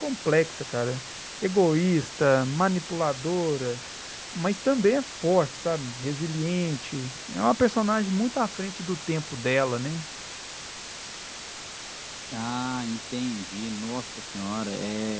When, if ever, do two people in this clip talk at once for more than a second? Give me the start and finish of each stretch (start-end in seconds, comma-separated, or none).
none